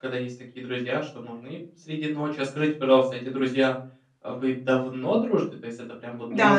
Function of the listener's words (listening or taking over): taking over